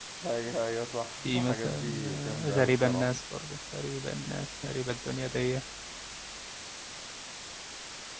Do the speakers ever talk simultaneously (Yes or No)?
Yes